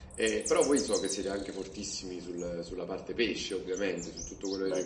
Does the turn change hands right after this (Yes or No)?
No